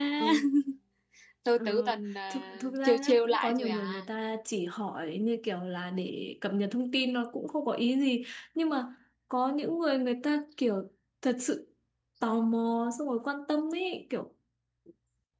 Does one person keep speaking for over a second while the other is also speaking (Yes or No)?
Yes